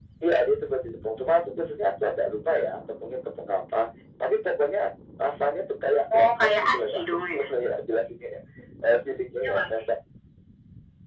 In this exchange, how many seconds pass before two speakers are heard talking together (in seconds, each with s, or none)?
6.1 s